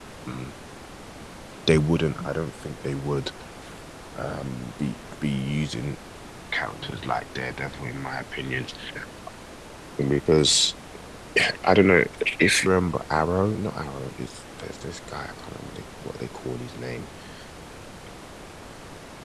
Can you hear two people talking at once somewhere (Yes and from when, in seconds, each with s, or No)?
No